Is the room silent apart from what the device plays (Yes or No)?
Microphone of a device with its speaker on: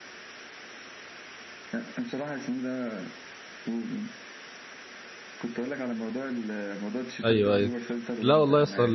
No